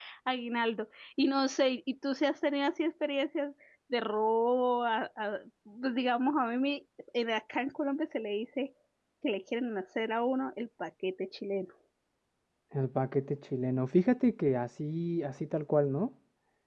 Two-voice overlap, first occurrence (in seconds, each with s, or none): none